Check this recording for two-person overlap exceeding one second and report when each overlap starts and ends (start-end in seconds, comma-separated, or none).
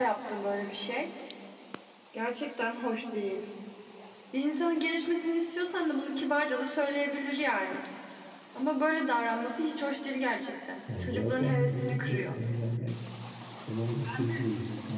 11.0-12.4